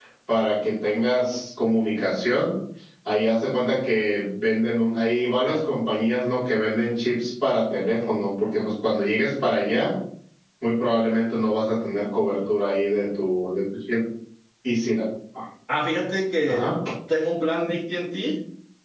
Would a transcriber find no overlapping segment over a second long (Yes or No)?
Yes